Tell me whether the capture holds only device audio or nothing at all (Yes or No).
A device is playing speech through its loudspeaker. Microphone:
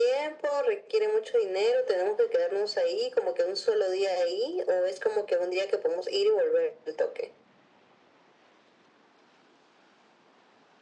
Yes